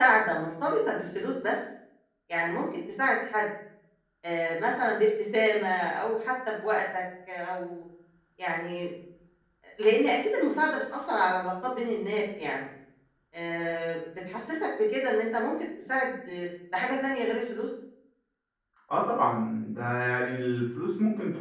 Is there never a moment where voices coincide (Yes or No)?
Yes